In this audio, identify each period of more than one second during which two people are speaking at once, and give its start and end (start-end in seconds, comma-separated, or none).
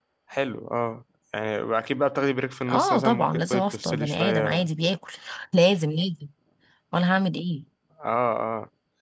2.7-4.7